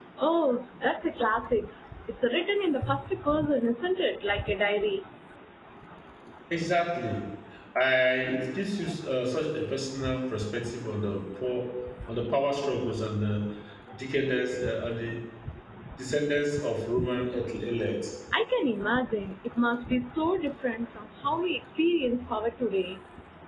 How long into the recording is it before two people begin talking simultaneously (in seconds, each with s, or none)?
none